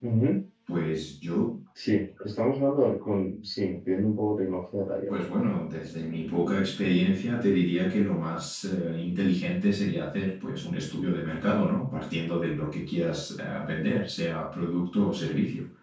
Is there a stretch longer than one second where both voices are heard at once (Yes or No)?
No